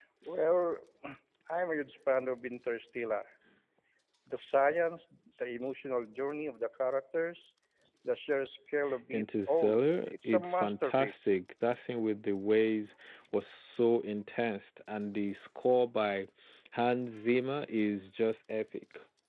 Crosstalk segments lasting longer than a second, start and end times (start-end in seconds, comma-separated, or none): 9.1-11.4